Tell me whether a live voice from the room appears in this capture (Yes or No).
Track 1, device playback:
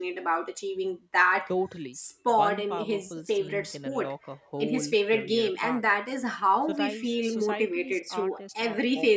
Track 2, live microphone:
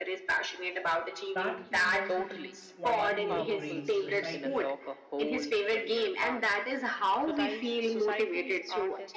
Yes